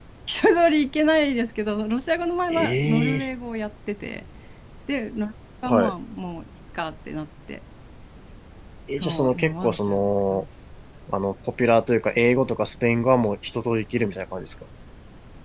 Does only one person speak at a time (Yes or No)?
No